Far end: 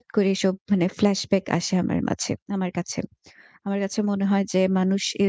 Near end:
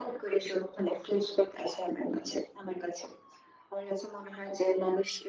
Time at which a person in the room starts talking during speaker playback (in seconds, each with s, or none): none